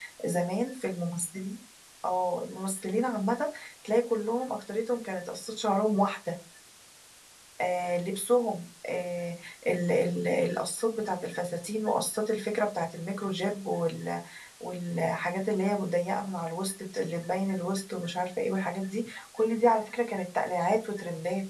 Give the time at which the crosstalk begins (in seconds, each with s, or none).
none